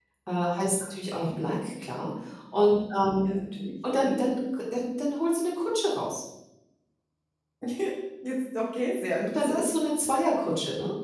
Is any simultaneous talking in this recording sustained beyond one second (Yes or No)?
No